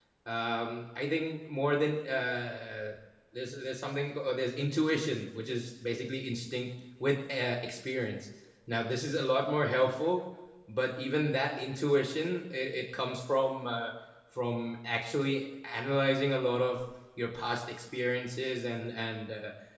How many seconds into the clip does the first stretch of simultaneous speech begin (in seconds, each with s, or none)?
none